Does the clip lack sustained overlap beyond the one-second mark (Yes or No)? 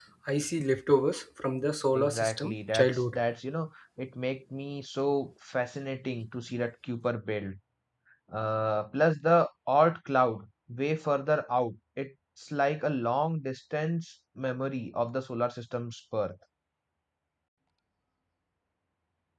No